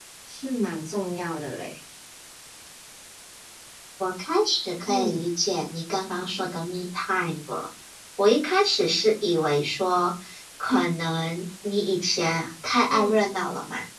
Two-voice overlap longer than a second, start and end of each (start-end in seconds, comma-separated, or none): none